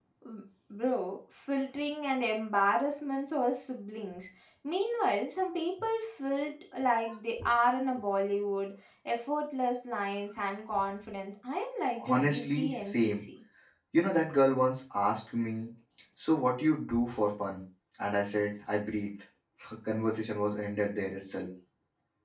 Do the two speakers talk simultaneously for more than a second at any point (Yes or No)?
Yes